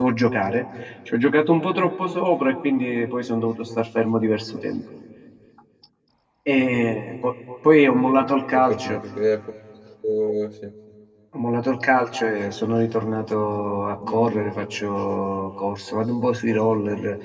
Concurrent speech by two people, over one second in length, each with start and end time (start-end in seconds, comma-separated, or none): none